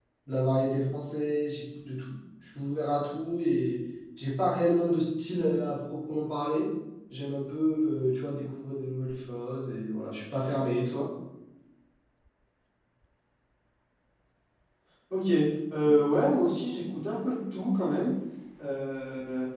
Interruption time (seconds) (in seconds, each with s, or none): none